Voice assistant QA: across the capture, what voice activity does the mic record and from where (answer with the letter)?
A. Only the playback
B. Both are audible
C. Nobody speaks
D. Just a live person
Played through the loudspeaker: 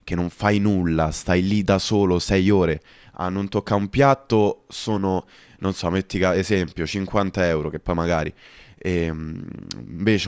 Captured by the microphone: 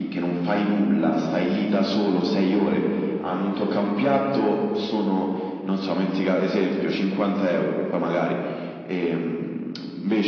A